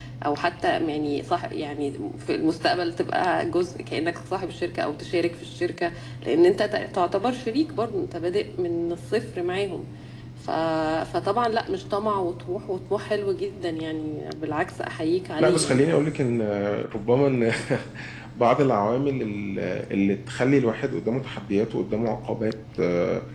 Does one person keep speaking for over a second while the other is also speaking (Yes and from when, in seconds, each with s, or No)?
No